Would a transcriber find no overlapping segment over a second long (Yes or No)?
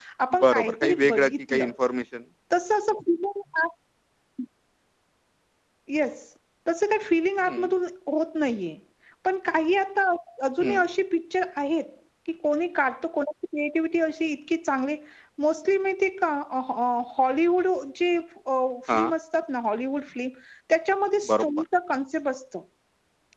No